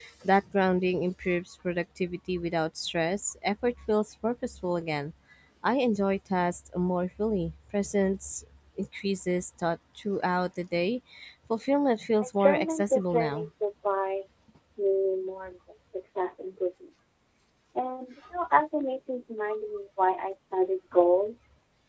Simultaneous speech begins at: 12.2 s

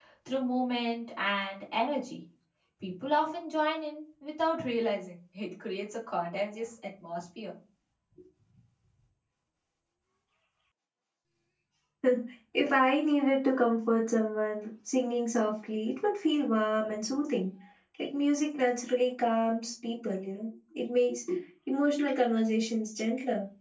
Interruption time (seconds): none

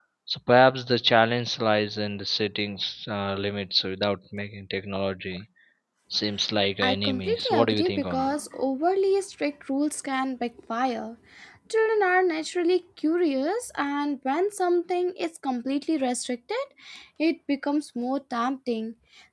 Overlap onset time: 6.8 s

